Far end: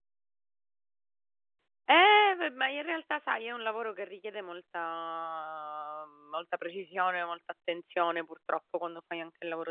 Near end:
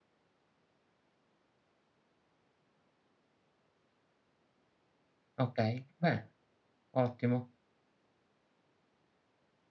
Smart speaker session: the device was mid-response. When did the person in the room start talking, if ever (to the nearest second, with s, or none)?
5 s